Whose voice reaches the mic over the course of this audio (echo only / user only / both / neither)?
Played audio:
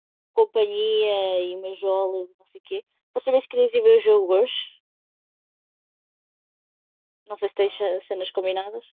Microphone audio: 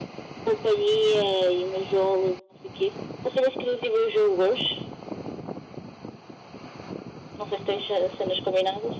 echo only